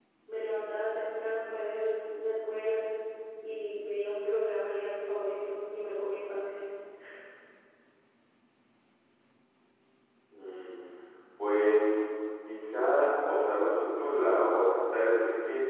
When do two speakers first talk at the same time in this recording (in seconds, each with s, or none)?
none